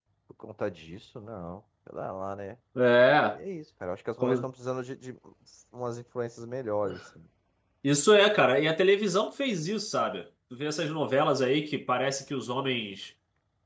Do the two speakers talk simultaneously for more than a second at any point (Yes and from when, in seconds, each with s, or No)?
No